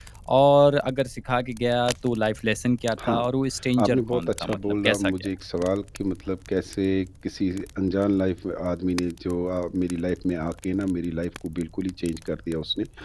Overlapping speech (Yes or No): Yes